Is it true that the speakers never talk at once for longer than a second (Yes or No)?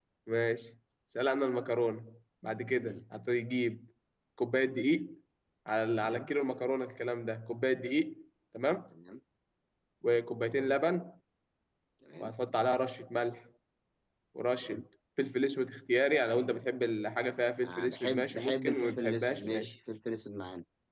No